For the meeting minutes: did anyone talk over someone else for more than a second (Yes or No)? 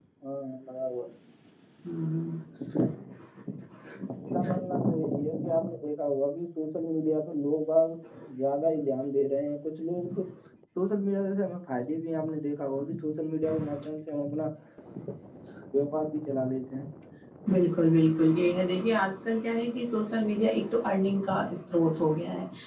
No